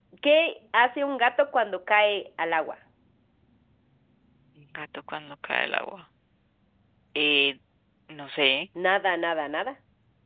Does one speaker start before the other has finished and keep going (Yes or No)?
No